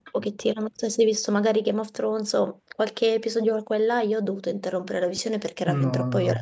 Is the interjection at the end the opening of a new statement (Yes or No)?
Yes